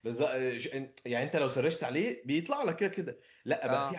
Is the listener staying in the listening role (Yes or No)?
Yes